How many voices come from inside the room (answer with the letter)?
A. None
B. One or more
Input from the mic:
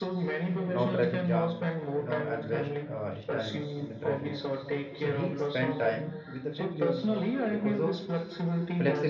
B